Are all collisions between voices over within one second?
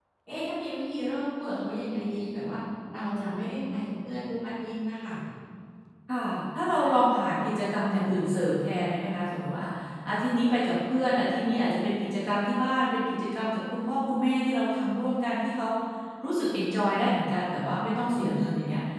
Yes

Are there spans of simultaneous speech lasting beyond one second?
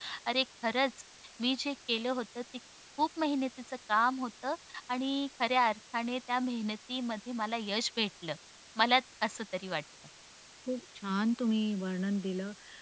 No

